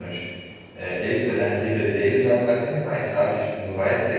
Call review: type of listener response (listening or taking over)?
listening